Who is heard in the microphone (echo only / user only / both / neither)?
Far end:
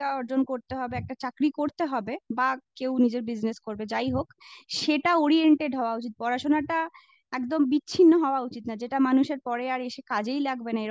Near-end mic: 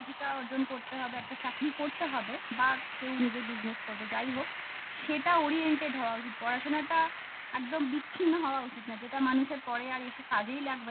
echo only